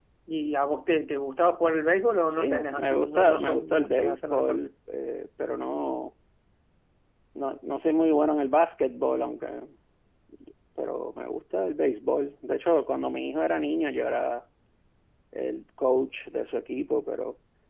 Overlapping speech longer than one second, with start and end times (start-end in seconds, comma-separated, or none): 2.3-4.6